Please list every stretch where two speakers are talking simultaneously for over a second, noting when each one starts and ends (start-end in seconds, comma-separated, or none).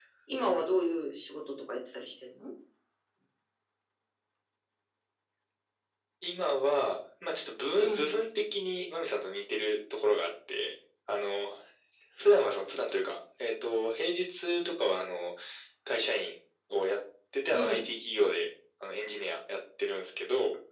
none